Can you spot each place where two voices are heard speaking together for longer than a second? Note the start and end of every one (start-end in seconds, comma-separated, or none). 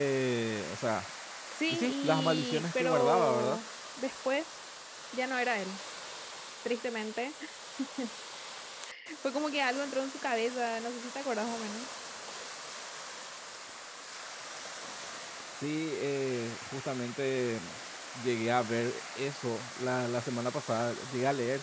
1.7-3.6